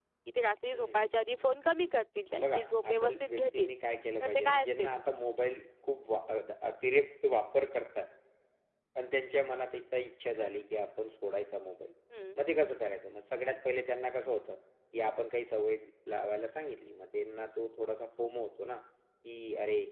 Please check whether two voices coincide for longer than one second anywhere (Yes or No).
Yes